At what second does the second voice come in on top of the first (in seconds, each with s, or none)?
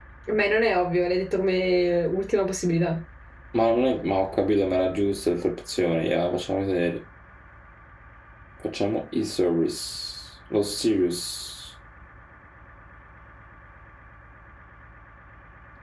none